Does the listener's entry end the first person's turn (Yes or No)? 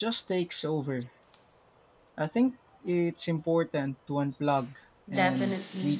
Yes